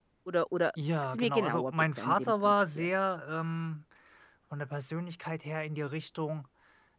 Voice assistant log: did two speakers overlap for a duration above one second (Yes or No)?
Yes